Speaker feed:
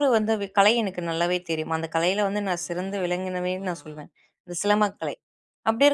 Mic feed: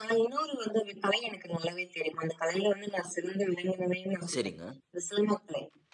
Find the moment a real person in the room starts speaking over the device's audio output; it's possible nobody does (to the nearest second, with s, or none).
4 s